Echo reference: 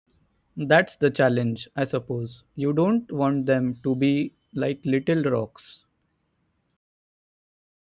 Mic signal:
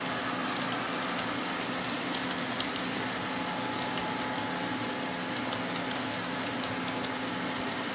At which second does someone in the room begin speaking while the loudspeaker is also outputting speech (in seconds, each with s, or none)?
none